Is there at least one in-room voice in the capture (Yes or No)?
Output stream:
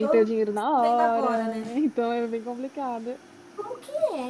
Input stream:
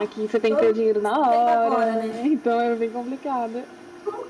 No